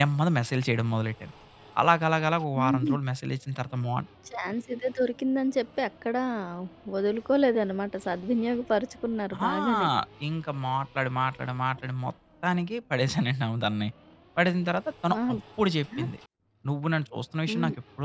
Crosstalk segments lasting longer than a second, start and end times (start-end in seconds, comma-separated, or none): none